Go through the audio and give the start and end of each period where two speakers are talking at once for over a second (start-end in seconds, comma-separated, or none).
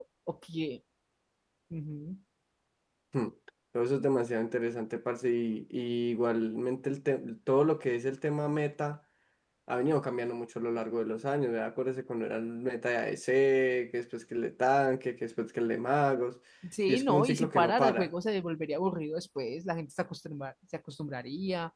16.9-18.1